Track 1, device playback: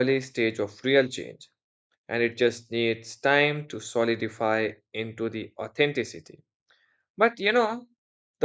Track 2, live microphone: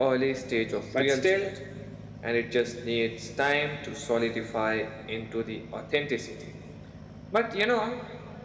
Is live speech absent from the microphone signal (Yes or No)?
No